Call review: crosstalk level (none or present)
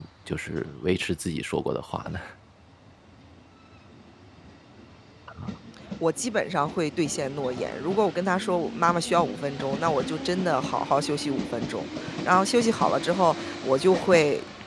none